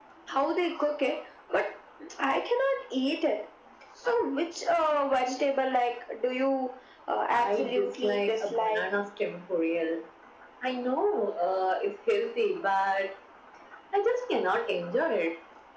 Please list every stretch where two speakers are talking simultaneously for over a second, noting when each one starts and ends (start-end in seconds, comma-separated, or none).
7.3-8.9